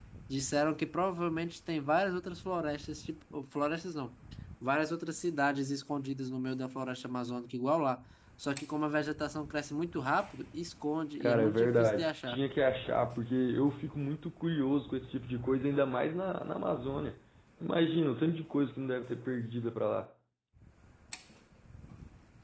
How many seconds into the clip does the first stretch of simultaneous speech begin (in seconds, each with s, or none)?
11.2 s